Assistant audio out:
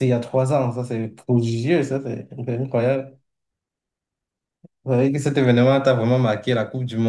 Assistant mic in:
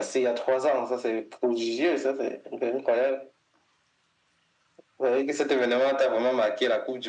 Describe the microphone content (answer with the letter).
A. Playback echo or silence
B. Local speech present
A